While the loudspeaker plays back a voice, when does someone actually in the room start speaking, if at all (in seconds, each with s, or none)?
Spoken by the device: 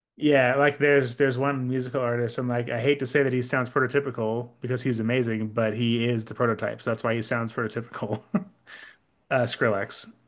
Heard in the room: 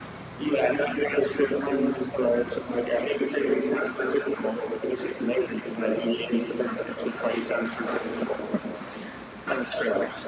none